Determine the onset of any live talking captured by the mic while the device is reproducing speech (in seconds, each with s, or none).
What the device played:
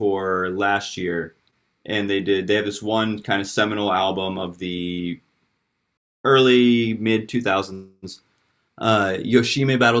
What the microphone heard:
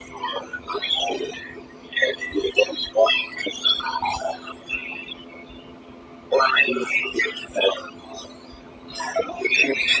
none